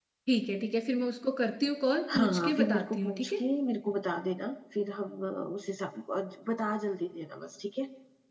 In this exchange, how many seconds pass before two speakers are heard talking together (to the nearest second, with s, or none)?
2 s